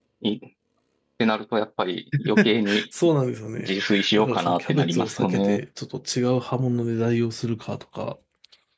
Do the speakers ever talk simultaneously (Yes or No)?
Yes